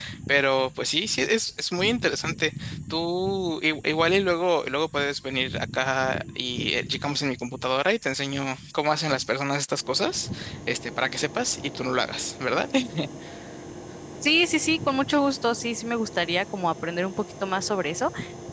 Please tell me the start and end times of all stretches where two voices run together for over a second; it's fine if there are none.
none

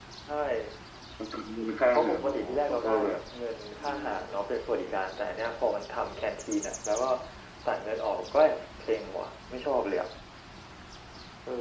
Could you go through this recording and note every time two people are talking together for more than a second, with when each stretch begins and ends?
1.9-3.2

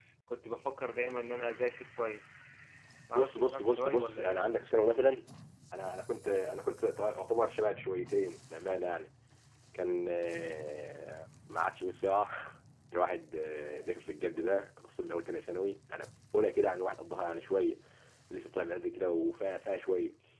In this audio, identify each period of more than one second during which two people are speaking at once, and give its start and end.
3.1-4.4

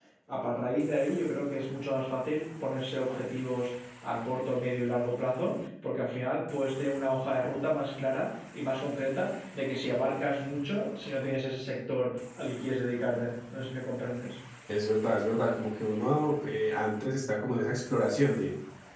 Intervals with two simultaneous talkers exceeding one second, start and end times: none

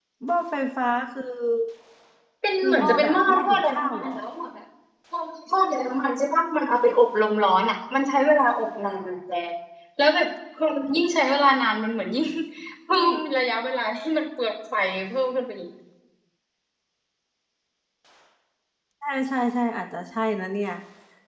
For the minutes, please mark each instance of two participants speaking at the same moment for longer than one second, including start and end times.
2.6-4.2

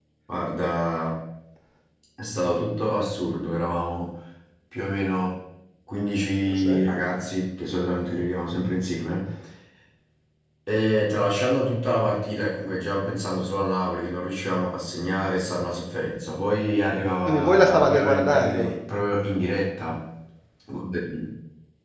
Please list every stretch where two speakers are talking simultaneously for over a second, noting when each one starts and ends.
17.2-18.8

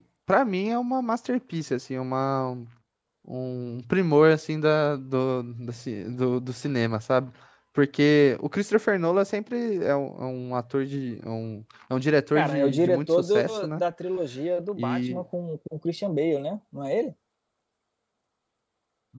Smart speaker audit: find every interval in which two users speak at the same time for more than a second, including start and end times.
12.4-13.8

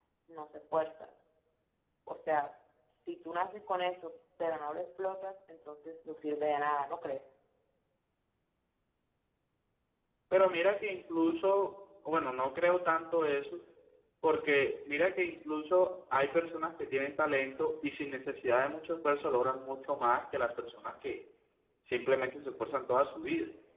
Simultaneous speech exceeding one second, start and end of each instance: none

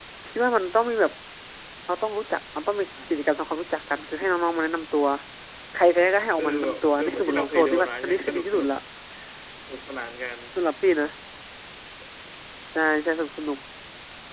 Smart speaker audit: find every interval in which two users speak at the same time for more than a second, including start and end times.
6.4-8.7

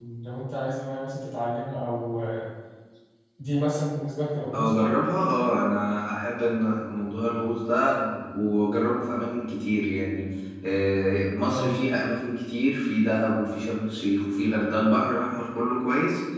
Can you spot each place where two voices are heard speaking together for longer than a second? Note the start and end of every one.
none

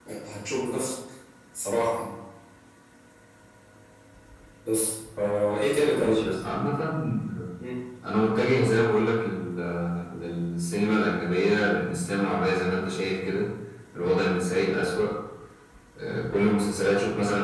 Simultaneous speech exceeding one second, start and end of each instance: none

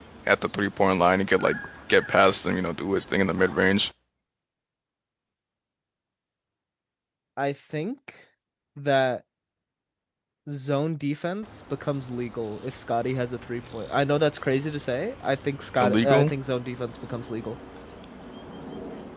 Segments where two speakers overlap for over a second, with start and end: none

